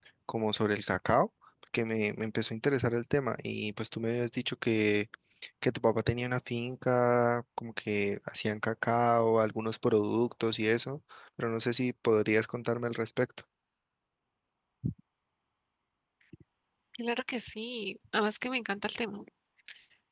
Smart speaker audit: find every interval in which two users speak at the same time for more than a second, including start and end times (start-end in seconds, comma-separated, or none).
none